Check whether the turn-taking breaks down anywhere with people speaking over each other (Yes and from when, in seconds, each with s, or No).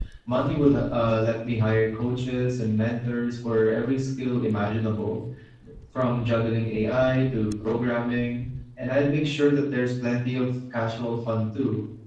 No